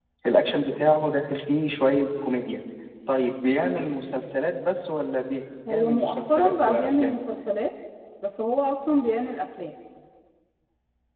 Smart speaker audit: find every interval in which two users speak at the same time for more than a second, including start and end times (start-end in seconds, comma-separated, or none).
5.7-7.2